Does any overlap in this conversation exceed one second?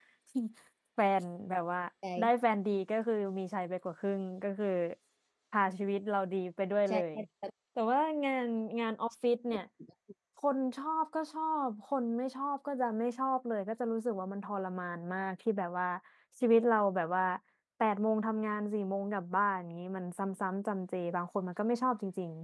No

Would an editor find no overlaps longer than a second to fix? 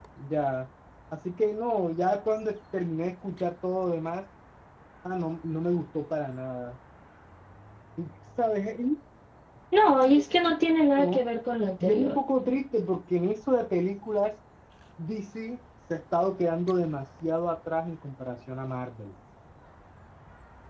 Yes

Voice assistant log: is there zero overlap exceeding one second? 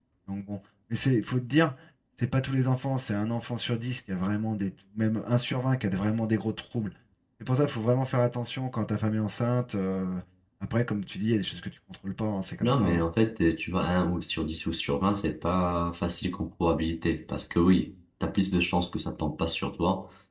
Yes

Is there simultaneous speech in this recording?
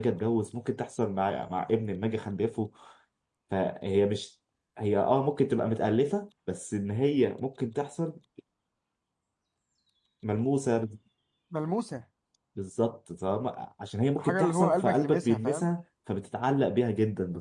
Yes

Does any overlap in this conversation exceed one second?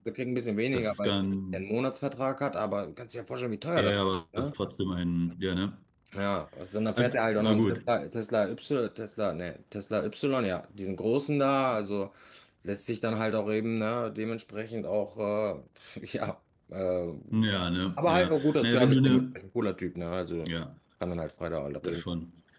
Yes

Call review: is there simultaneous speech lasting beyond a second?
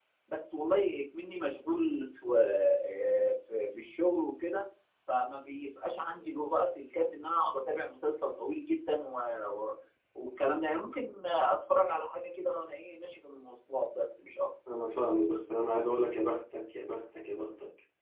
No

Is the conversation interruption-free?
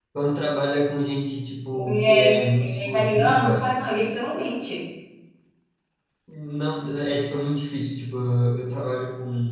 No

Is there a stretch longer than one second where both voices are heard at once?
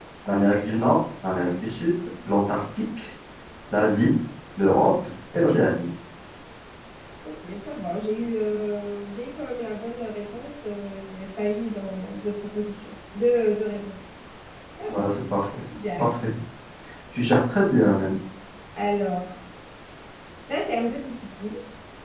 No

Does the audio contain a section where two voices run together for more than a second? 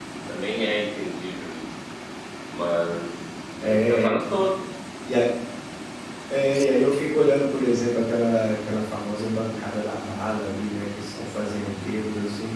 No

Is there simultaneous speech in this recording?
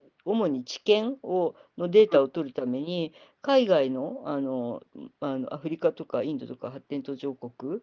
No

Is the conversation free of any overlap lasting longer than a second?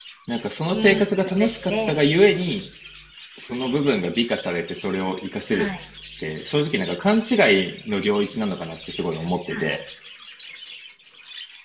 No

